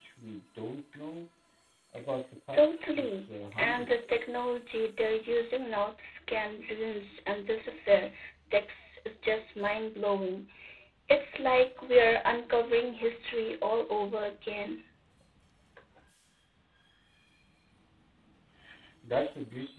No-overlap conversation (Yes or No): No